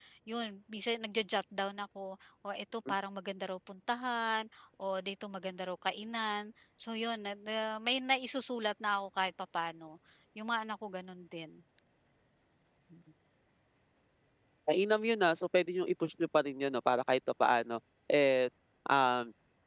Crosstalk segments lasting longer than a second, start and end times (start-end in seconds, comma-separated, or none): none